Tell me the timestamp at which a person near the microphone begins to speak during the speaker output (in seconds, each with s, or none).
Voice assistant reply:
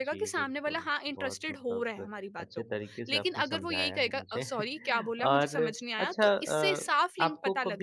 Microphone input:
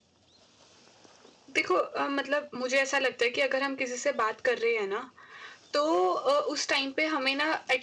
1.6 s